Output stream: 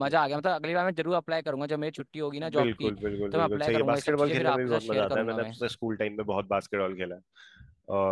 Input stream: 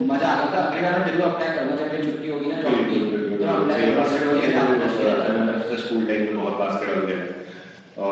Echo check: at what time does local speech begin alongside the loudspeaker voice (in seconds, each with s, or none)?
none